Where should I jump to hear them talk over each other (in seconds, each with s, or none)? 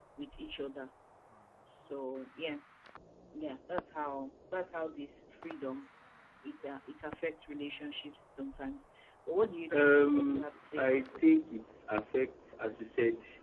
9.7 s